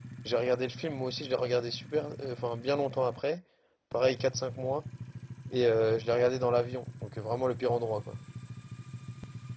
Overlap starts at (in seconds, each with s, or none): none